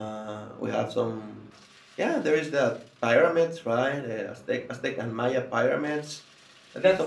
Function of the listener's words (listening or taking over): taking over